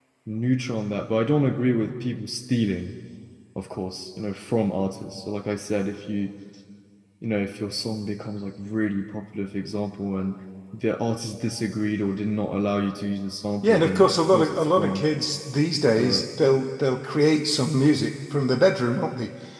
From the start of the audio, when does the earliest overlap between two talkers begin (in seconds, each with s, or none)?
13.6 s